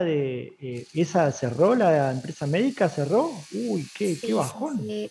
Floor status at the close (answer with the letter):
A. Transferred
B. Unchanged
A